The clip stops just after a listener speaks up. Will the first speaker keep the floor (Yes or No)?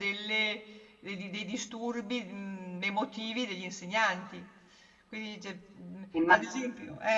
Yes